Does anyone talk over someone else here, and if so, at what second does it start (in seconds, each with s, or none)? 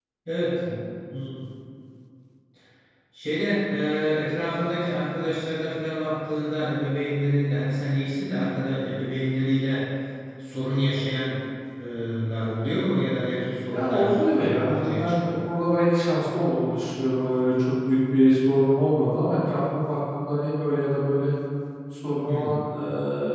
13.7 s